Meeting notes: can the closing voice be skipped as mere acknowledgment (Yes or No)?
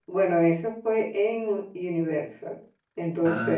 Yes